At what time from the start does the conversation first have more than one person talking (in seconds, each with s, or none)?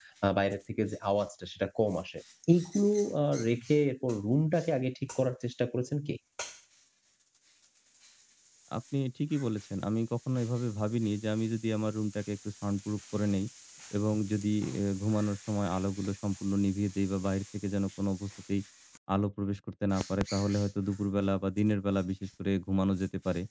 none